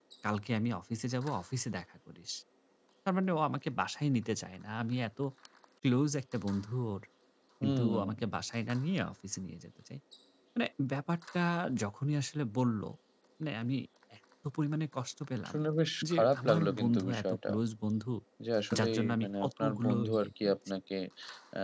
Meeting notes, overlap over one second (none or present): present